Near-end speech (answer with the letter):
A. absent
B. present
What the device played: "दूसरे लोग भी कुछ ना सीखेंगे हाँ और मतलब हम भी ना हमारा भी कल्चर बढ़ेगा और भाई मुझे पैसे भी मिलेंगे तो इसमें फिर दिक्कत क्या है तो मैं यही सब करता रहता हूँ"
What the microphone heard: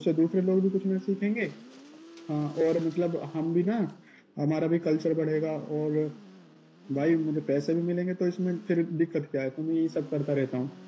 A